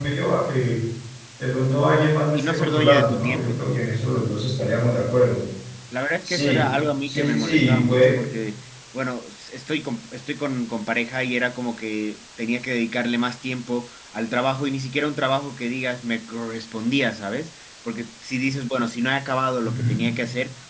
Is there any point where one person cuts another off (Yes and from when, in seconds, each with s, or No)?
Yes, from 2.3 s